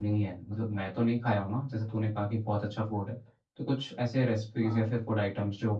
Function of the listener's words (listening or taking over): listening